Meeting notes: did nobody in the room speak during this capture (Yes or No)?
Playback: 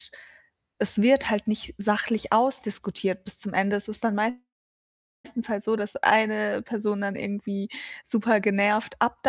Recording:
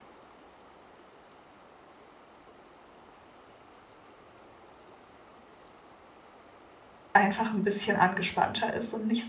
No